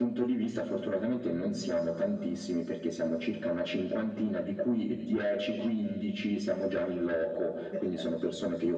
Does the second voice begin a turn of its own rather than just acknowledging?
No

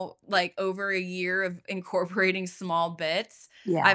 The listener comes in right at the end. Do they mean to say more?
No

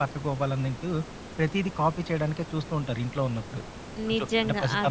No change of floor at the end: No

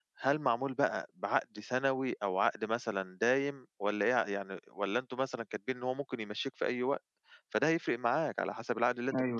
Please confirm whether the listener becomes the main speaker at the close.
Yes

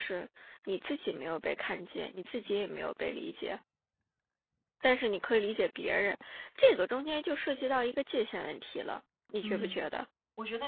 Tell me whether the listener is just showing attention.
No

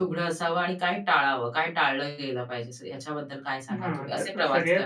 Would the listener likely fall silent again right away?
No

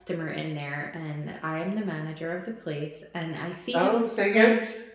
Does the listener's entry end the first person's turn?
Yes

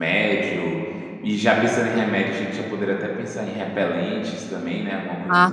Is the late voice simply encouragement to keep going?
No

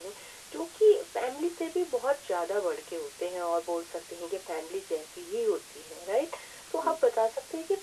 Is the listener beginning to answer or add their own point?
No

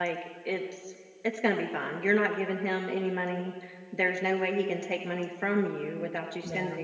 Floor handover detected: No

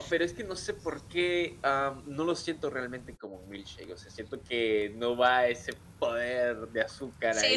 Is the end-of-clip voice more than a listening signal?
Yes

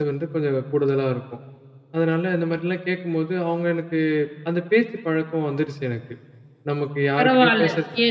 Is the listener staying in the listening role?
No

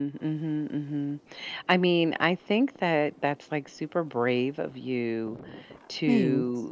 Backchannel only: Yes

